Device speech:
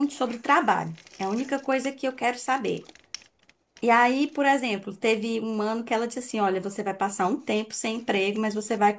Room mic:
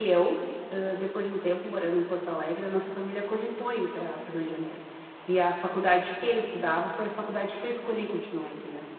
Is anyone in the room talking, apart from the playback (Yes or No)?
Yes